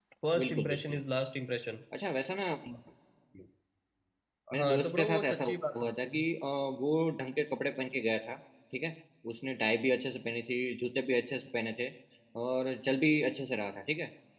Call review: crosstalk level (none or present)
present